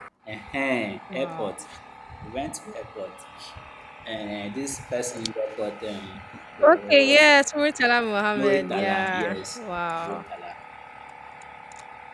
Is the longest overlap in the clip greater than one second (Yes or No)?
Yes